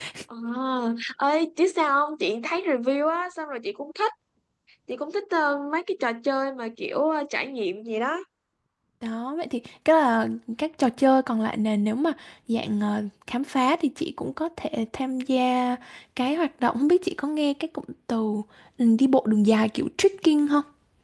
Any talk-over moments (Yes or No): No